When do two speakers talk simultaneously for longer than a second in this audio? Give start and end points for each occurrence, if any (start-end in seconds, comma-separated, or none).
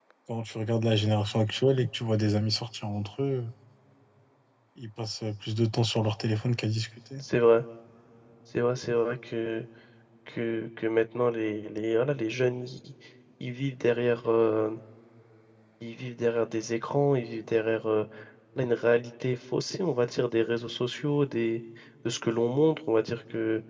none